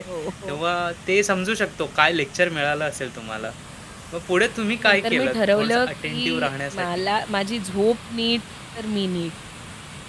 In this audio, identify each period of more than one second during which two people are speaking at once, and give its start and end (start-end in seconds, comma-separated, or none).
4.8-7.1